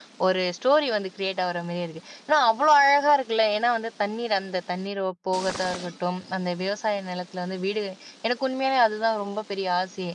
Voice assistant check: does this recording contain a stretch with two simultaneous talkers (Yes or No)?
No